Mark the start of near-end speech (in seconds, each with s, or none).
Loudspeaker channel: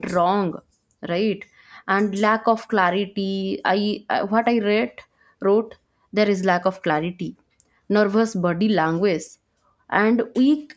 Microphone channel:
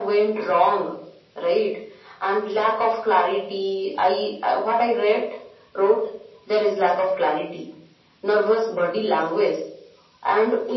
none